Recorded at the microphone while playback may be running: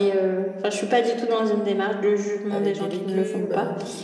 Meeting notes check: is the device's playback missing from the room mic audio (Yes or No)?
No